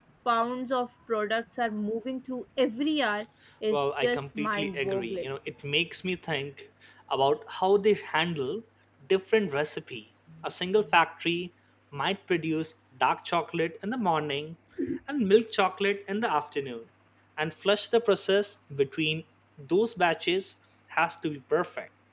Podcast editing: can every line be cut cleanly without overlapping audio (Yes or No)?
No